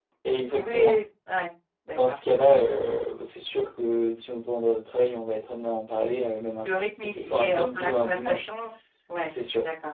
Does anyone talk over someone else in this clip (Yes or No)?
Yes